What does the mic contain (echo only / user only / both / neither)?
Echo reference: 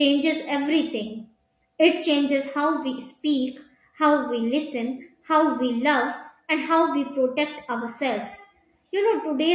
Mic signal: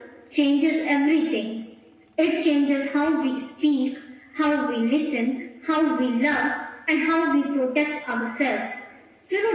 echo only